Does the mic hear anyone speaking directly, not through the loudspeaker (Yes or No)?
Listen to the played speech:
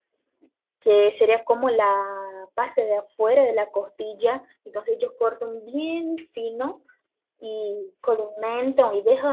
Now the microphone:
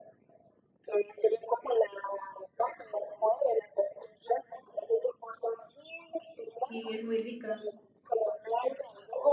Yes